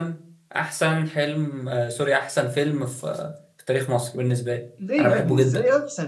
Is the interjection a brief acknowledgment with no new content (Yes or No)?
No